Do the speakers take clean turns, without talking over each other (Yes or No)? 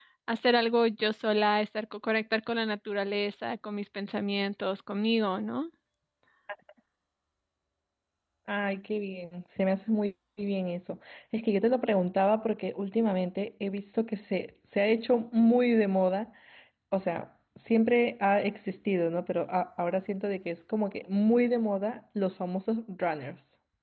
Yes